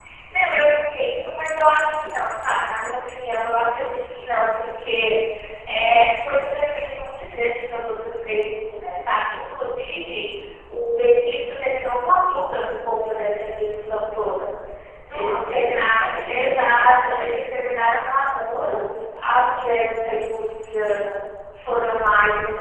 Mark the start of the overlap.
15.1 s

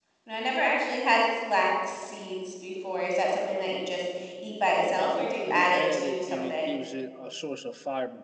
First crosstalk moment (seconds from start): 4.8 s

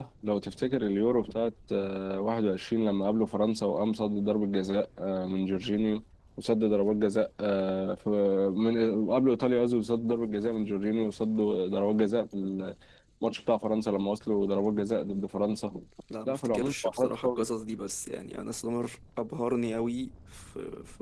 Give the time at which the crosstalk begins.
16.3 s

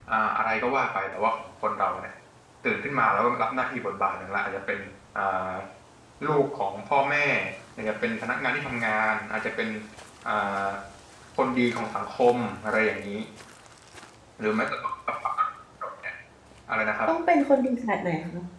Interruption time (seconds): none

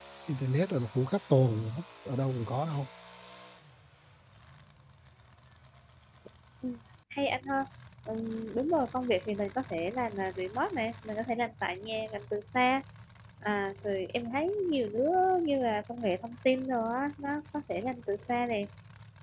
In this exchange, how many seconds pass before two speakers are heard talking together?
none

